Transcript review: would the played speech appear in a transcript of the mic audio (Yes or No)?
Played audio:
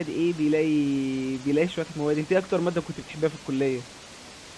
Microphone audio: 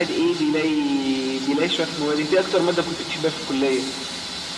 Yes